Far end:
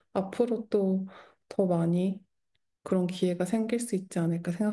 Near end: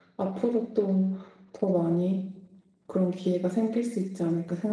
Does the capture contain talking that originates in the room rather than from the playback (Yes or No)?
No